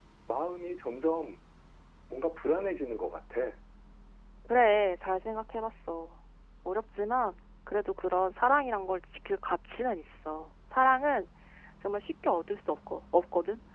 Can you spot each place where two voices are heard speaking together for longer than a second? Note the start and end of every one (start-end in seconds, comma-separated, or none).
none